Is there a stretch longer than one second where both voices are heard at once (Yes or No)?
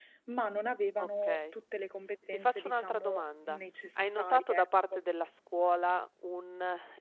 Yes